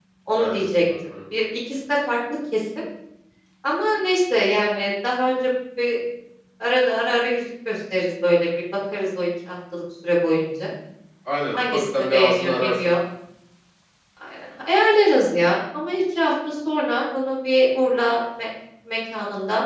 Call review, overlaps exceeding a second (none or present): present